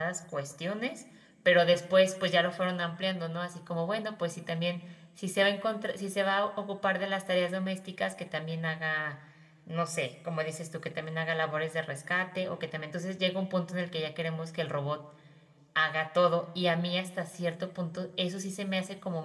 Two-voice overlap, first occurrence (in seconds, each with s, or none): none